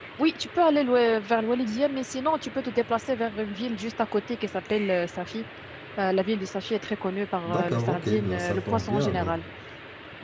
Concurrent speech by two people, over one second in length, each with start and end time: 7.4-9.3

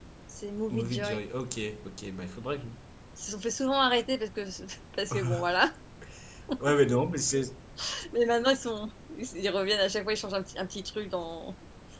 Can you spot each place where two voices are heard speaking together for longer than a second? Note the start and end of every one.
none

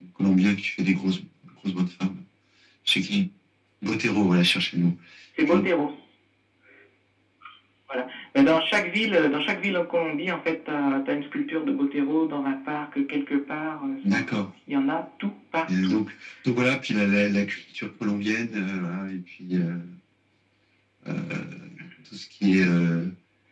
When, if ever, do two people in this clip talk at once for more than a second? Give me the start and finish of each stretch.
none

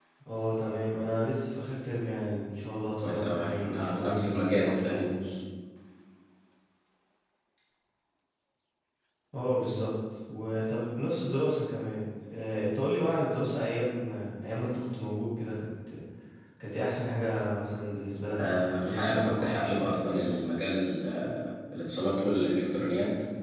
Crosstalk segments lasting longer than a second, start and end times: 3.0-5.1, 18.4-20.5

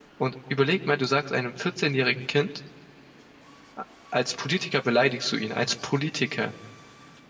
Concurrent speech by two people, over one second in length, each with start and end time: none

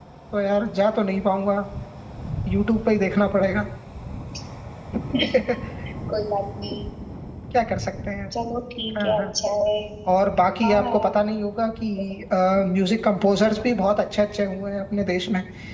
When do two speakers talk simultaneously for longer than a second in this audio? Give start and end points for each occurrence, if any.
none

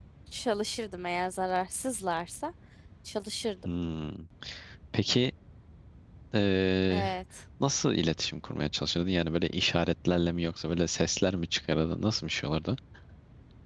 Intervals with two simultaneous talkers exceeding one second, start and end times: none

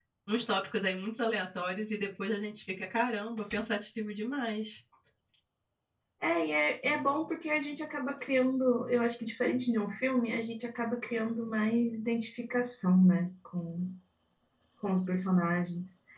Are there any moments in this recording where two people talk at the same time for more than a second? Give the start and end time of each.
none

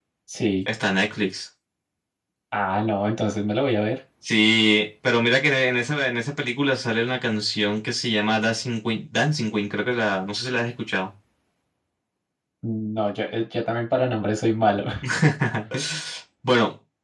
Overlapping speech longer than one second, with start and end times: none

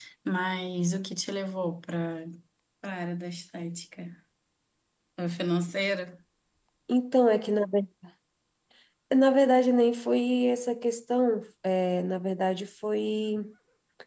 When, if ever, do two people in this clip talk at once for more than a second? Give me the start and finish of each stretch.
none

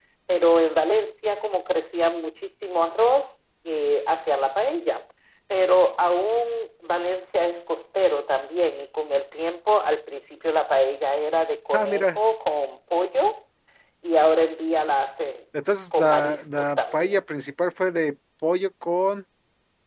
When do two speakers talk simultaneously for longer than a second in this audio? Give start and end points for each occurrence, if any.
15.7-17.1

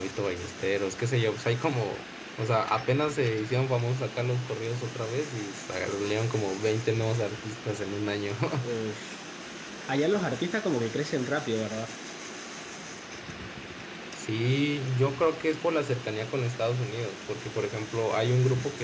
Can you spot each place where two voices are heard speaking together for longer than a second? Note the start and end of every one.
none

